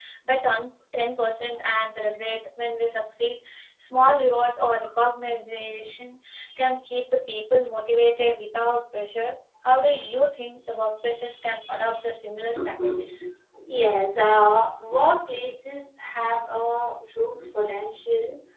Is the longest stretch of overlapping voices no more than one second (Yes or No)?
Yes